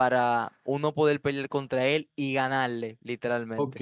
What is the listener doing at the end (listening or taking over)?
taking over